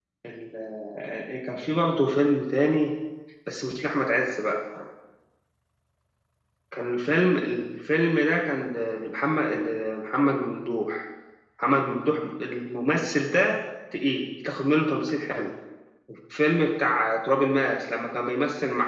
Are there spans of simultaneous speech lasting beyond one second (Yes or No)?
No